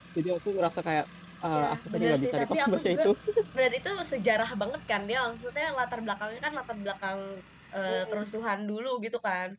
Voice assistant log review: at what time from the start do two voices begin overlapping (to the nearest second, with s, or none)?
2 s